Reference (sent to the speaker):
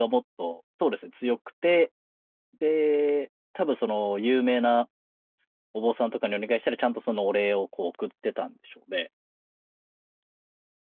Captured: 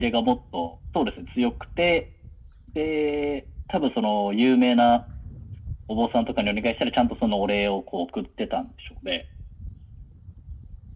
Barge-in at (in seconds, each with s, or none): none